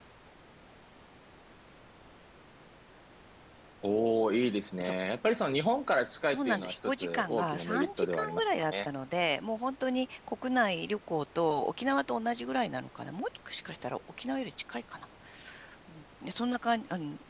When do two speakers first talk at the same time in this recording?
6.2 s

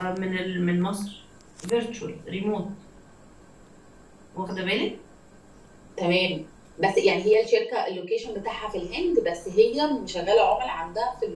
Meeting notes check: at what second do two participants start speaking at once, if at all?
none

